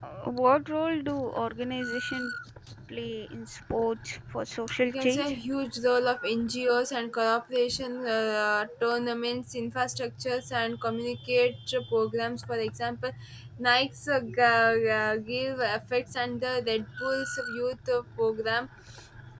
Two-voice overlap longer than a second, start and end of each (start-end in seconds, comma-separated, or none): none